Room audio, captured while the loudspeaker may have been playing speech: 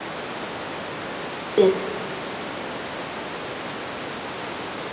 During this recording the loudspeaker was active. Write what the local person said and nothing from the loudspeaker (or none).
Yes.